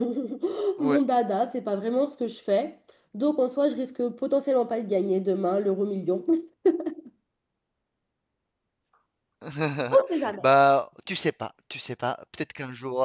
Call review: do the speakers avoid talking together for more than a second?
Yes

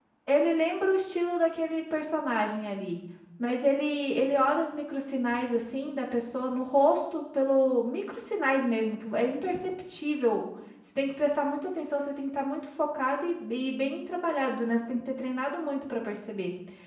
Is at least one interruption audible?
No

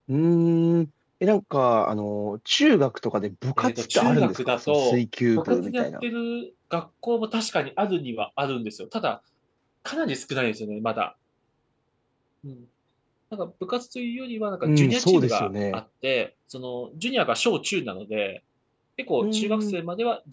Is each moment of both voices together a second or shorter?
No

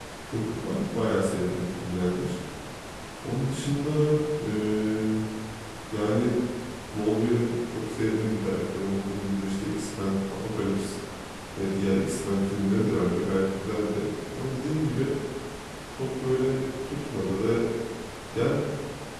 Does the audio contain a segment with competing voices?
No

